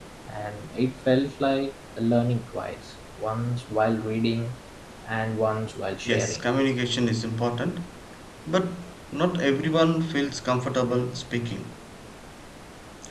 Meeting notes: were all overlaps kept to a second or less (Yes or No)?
Yes